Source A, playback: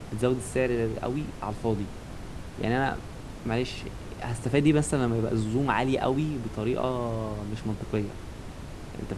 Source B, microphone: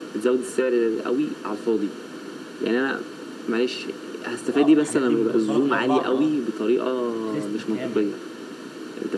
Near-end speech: present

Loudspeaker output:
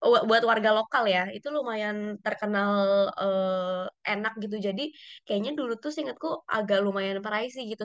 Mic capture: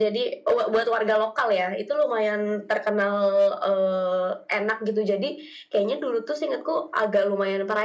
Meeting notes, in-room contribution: none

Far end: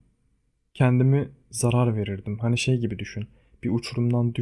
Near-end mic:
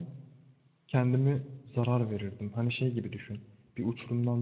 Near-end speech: none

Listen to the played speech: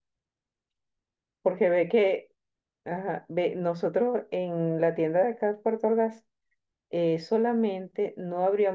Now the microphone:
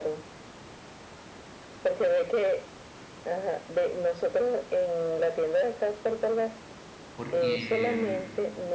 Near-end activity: present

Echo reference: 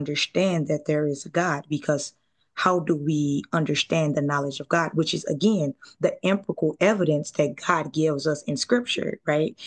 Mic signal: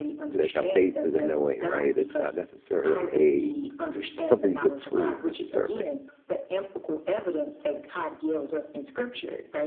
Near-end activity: present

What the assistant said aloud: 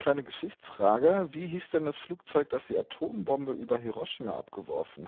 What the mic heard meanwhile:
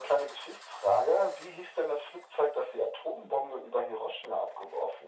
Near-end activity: none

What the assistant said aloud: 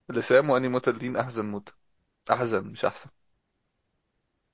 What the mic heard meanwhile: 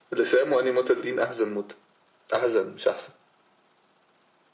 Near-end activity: none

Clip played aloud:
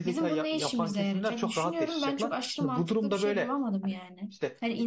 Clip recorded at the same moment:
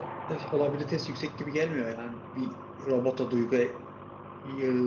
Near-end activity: present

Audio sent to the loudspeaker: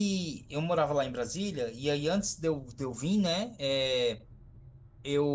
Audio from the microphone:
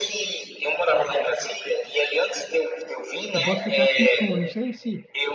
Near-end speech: present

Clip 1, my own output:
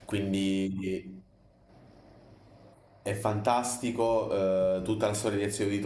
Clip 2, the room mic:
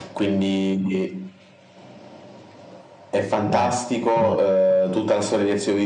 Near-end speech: present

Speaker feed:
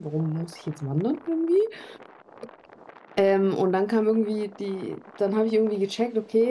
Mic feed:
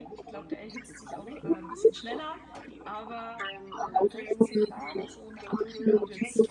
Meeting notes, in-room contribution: present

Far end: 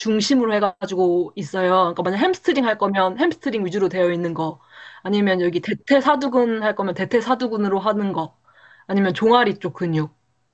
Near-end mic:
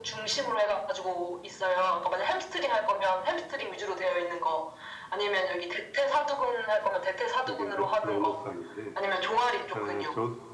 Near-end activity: present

